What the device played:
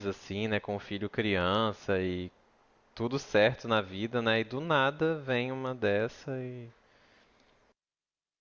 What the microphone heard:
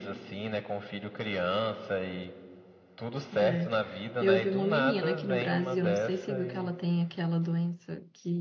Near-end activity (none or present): present